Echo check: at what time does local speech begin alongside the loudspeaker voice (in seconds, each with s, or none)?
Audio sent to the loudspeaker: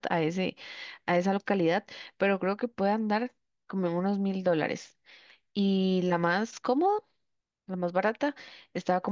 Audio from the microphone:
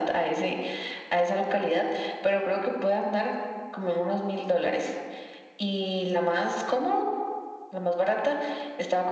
none